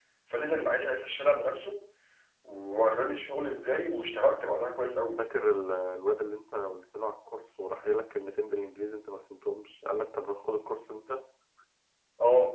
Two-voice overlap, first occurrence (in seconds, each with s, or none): none